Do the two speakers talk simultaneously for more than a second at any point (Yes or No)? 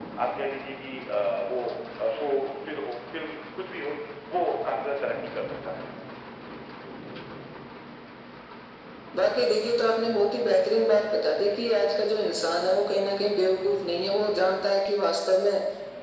No